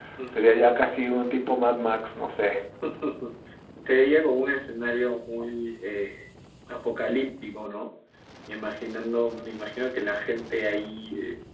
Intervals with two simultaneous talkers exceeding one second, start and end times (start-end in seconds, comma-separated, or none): none